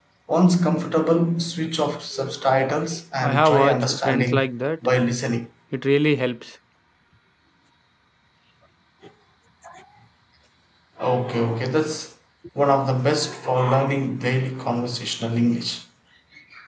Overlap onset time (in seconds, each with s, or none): 3.2 s